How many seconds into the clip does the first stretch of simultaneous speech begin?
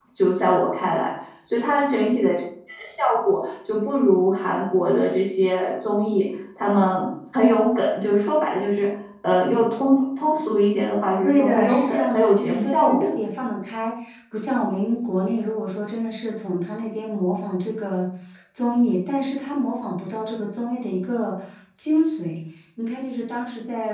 11.2 s

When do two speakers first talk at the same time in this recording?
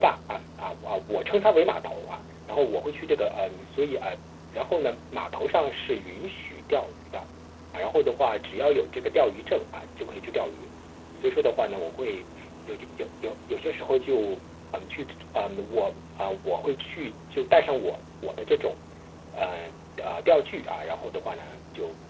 none

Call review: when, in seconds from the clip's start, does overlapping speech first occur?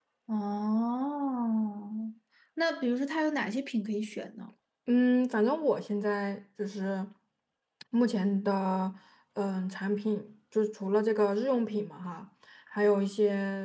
none

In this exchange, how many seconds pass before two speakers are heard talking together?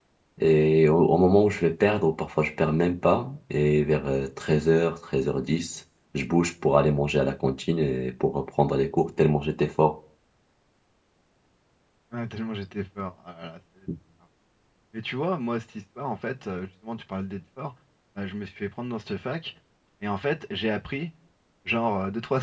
none

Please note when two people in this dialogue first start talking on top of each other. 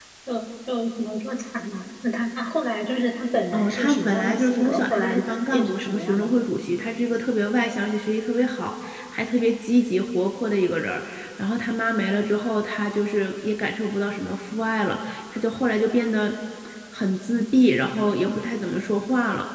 3.5 s

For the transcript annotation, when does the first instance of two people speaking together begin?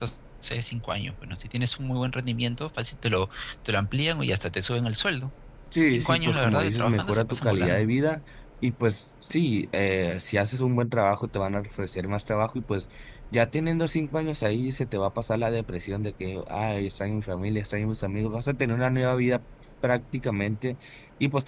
5.9 s

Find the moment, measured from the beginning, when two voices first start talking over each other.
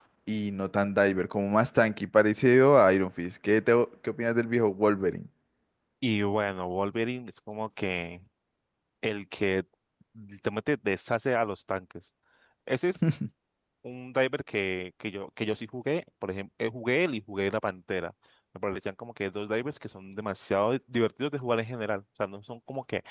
none

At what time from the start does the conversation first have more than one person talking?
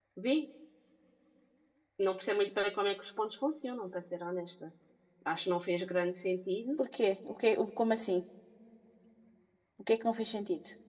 none

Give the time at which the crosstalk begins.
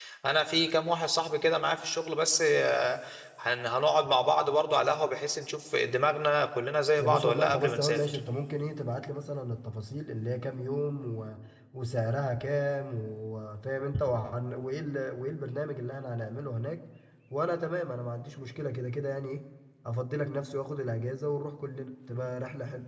7.0 s

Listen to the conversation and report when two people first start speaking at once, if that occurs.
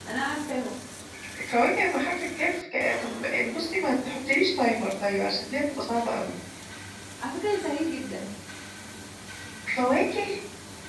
none

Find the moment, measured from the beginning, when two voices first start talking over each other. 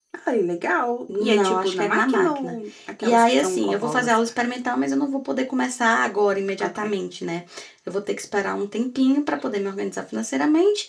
1.1 s

